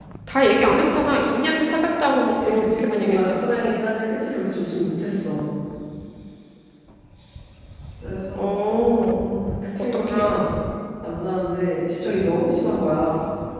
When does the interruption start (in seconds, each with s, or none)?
2.3 s